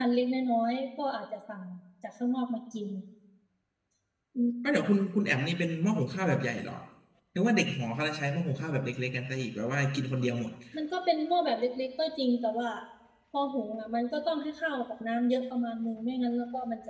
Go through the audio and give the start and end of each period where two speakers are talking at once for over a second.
none

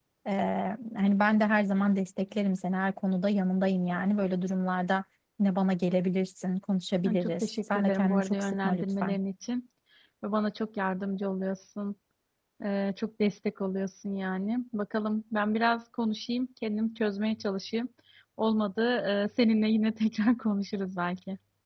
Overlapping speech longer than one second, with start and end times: 7.0-9.2

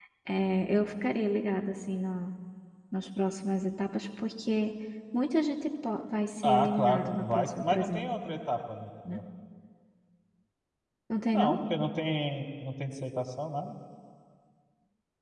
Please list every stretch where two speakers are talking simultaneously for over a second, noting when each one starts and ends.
6.5-8.0

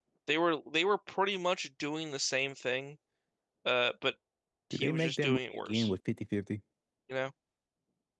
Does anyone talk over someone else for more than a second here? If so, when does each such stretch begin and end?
4.7-5.9

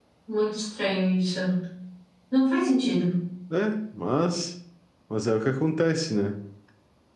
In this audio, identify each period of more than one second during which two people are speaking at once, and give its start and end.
none

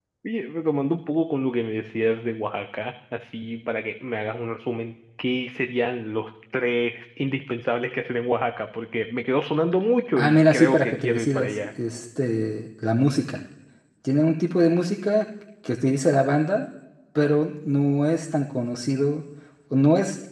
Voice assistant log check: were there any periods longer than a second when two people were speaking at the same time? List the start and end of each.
10.2-11.6

